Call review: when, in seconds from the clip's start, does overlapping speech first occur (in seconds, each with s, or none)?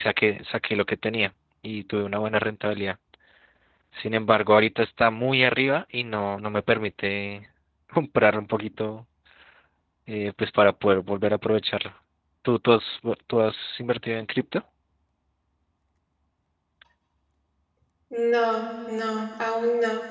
none